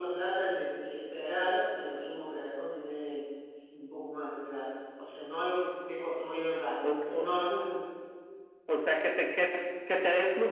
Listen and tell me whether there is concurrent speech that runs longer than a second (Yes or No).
No